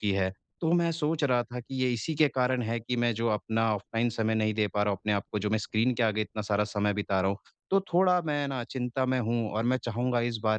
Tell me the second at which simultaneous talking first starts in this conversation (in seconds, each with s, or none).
none